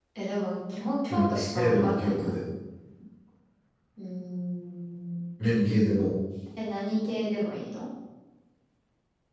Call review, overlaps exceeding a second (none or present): present